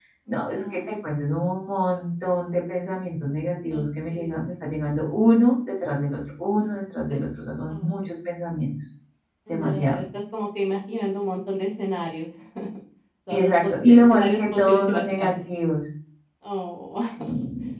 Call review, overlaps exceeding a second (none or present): present